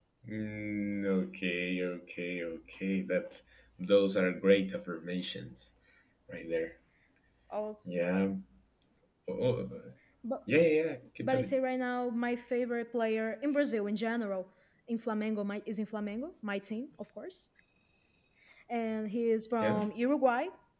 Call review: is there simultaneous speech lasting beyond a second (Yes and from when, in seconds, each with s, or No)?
No